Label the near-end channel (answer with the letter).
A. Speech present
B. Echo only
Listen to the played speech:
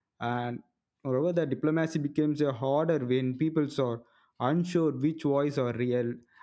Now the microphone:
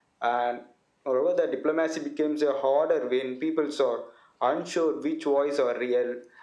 B